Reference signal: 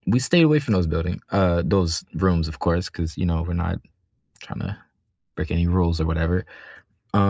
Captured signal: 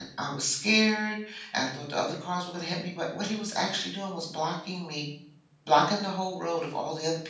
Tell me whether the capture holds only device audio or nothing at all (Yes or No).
No